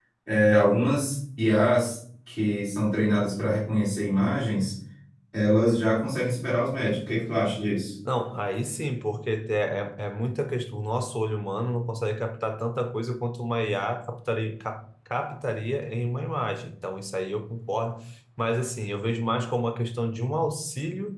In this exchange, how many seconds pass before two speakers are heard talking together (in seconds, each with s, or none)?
none